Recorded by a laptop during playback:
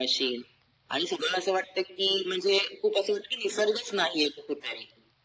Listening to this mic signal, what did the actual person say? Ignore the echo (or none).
none